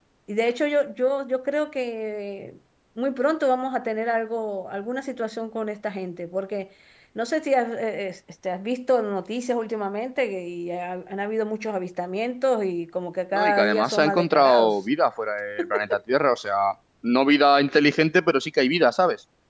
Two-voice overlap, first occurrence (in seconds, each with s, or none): 13.3 s